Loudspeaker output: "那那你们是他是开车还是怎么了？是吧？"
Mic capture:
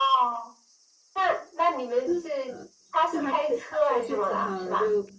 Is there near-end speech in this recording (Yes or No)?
Yes